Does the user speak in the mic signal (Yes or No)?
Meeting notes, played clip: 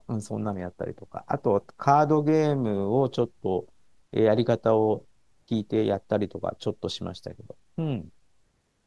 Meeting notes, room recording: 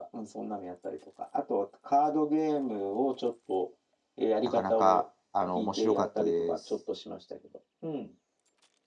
Yes